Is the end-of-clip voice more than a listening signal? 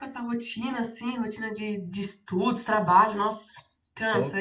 Yes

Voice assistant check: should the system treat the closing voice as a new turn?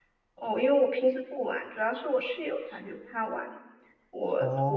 No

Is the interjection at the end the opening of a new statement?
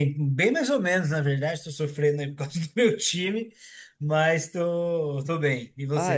Yes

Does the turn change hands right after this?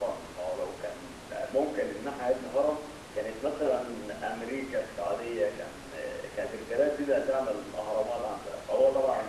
Yes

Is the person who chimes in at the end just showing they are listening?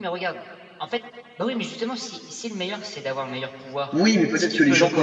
No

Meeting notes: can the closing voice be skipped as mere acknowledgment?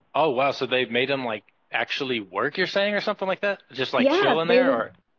No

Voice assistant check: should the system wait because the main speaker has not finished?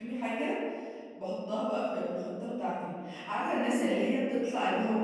Yes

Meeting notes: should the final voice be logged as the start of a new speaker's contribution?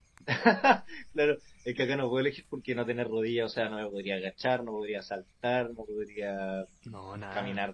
No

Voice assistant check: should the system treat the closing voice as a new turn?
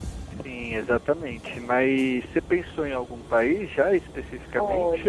Yes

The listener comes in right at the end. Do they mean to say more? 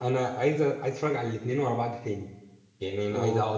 No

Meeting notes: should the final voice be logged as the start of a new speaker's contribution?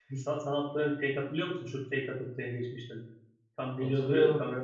Yes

